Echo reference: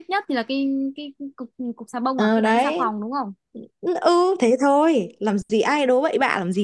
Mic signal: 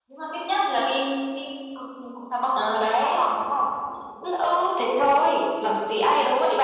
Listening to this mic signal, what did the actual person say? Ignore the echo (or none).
none